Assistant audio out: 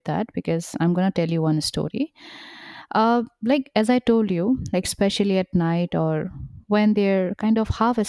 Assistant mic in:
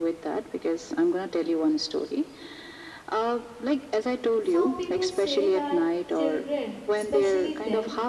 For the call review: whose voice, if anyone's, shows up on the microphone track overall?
both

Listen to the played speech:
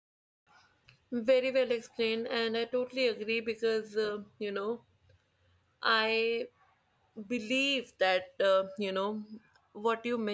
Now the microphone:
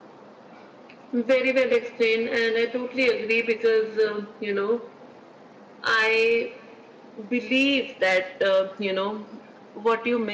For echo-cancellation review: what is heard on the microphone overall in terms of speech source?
echo only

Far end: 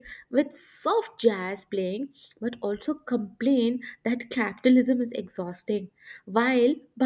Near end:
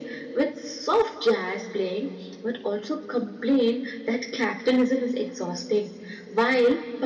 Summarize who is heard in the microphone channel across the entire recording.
echo only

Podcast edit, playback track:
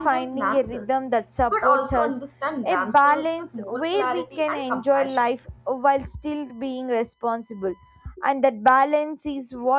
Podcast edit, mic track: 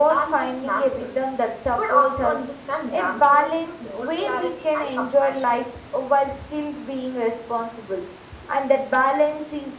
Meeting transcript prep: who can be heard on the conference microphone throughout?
echo only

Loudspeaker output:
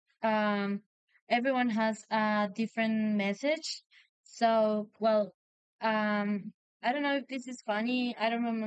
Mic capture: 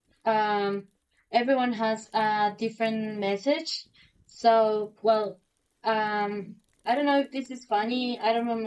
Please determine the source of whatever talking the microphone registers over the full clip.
echo only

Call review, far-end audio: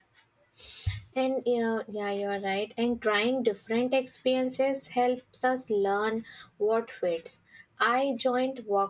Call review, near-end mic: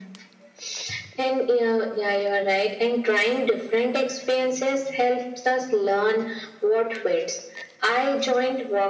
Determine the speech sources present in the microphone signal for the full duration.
echo only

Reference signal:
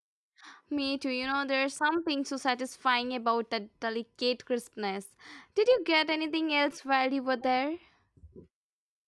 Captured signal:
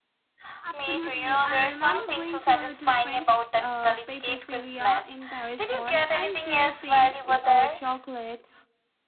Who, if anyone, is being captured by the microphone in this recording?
both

